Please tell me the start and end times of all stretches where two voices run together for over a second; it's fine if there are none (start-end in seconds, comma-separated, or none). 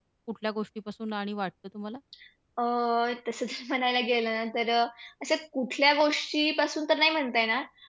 none